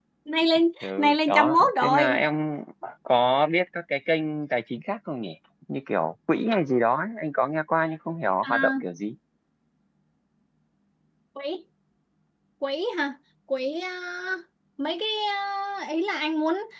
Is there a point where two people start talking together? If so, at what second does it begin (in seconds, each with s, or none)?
0.8 s